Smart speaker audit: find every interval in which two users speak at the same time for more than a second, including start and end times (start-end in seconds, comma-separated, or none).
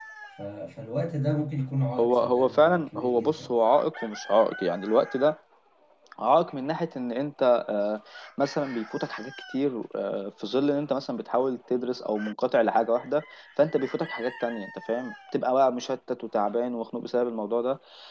2.0-3.3